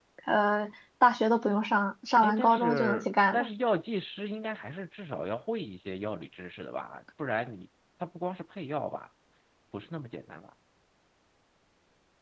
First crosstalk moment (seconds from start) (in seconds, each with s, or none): 2.2 s